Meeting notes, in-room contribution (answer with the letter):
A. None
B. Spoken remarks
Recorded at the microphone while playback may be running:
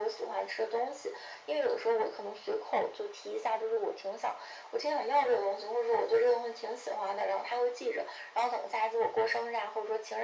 A